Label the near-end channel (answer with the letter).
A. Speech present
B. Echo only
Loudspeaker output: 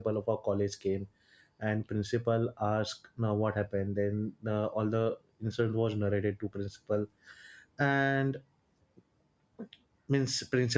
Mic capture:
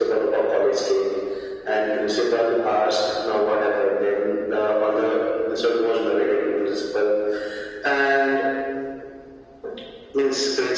B